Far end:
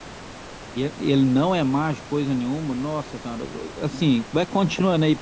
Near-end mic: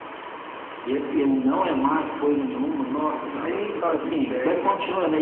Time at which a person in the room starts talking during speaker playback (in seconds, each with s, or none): 3.2 s